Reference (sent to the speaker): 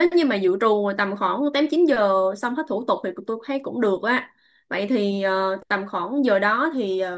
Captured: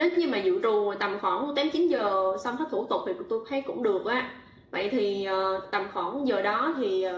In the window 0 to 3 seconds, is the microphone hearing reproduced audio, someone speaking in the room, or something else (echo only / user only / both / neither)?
echo only